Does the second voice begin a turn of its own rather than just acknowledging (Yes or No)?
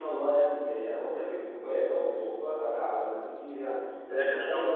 Yes